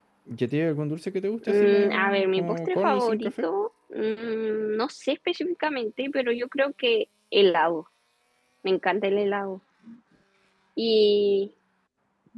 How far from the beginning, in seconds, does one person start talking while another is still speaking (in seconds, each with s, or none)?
1.4 s